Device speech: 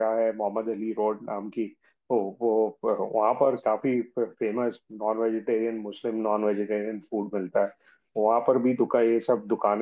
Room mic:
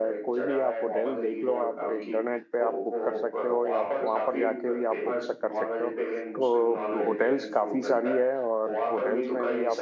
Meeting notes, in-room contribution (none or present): present